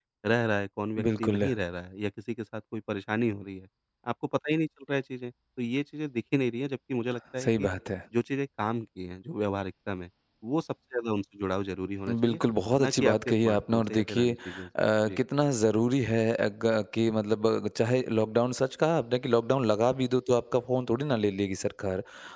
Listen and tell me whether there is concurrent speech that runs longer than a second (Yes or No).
Yes